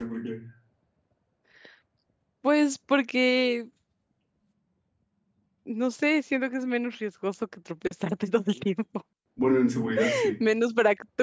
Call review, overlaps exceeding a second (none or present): none